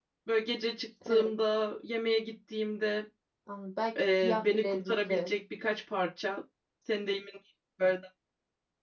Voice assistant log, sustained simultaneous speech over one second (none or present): present